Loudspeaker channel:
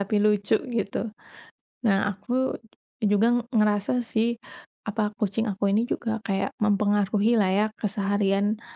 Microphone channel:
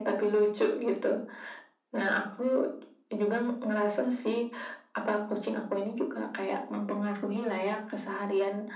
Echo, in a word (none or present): present